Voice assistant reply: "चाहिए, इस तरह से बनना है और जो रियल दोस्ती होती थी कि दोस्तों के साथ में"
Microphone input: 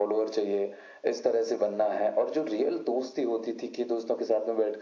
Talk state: echo only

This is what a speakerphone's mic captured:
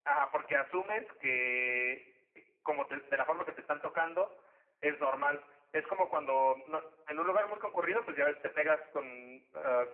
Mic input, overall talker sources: echo only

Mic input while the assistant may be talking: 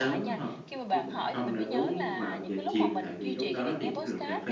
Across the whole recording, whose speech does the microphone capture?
both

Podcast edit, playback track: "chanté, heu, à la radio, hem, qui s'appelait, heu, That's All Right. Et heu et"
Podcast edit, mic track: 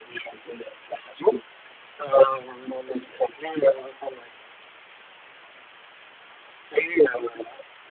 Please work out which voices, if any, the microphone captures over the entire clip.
echo only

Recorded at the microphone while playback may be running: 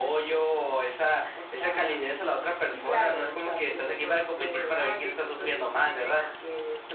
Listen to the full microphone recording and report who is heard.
echo only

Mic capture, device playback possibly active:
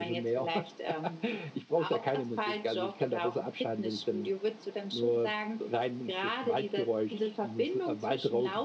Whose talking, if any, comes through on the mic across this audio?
echo only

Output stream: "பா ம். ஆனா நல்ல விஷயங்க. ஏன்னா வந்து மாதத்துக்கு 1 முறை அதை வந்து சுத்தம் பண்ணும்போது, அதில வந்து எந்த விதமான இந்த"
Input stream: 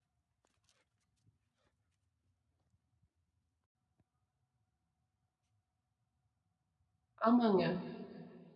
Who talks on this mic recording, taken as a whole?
user only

